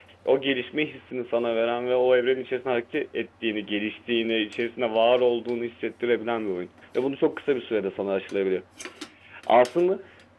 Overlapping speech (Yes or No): No